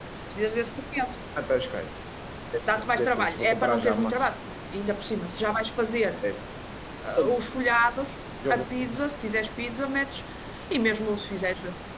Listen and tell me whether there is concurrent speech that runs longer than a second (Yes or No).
Yes